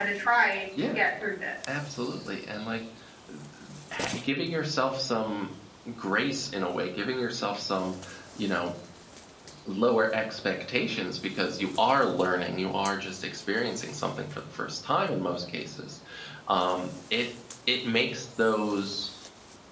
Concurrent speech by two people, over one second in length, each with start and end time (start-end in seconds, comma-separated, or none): none